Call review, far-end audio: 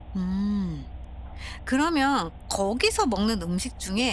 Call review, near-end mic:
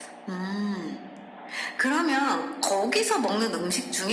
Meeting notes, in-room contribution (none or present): none